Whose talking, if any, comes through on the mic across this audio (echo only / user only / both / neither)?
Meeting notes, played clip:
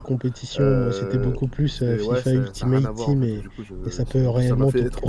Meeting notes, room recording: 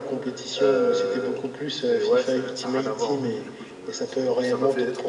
both